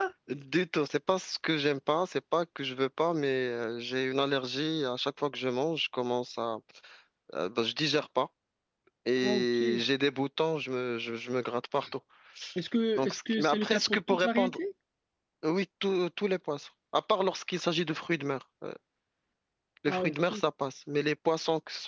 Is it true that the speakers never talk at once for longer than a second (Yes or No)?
No